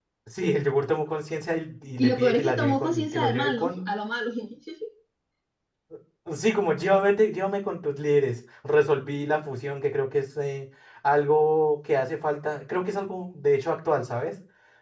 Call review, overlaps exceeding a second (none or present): present